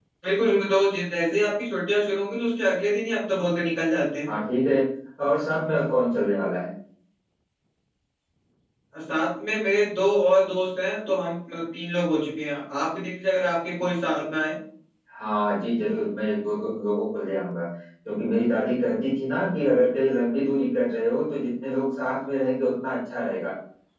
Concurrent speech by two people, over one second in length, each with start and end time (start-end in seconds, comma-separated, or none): none